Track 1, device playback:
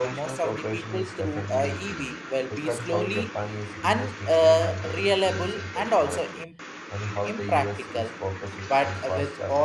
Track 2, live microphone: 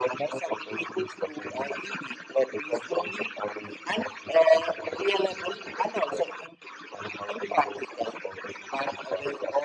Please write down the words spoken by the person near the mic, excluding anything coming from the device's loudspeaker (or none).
none